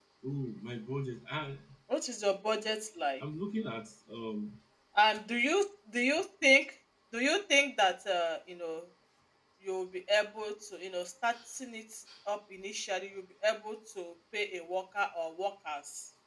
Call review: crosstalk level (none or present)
none